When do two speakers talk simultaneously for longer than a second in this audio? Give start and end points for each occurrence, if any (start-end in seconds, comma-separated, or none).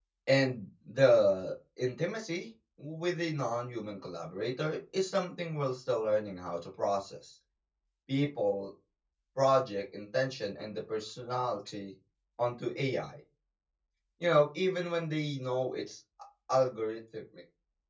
none